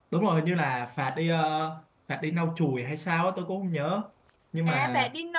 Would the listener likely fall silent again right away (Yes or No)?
No